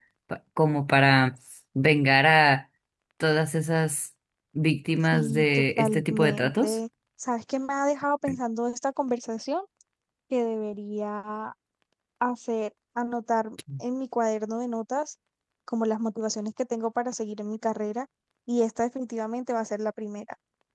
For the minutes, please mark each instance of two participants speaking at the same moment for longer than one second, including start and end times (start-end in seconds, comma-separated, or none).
5.0-6.8